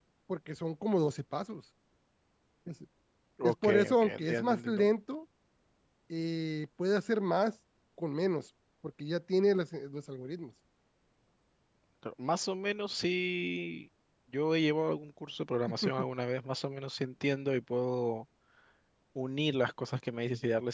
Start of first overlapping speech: 3.4 s

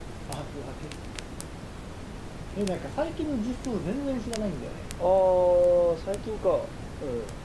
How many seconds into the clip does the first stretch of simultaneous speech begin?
none

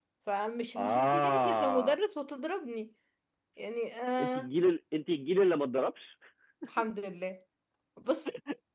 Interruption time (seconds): 0.8 s

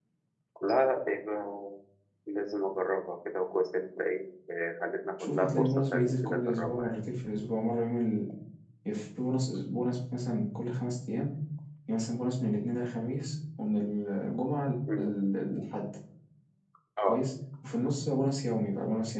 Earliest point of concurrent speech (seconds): 5.2 s

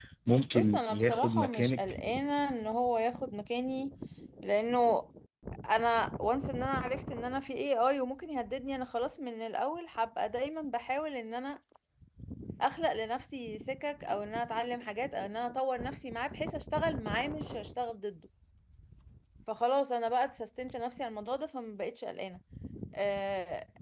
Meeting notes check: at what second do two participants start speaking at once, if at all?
0.6 s

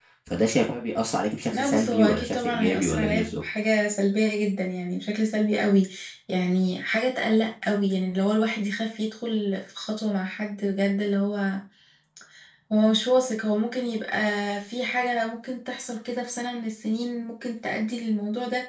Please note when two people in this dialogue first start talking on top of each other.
1.5 s

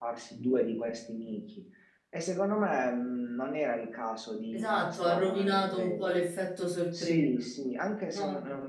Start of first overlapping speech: 4.5 s

